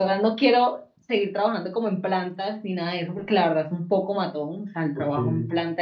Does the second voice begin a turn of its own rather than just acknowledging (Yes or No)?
No